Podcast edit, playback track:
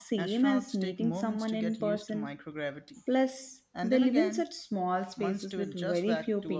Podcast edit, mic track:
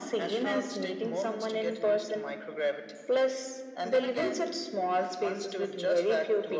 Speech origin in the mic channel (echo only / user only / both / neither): echo only